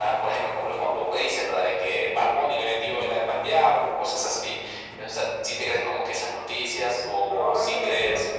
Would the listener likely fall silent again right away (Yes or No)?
No